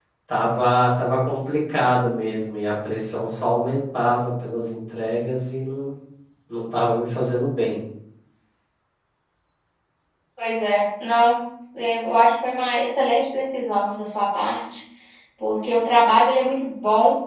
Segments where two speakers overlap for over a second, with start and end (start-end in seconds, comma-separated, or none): none